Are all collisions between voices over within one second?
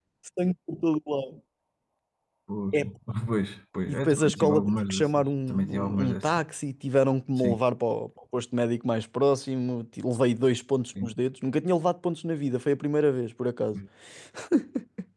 No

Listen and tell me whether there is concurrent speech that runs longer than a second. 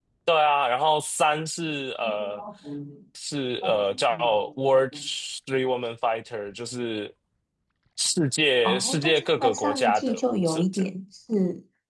Yes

